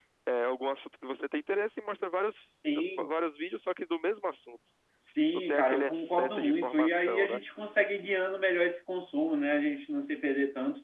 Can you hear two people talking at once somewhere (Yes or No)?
Yes